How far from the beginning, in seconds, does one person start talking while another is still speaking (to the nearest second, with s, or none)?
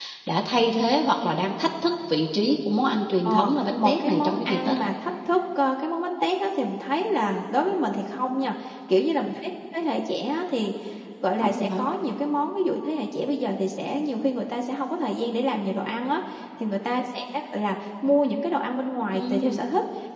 3 s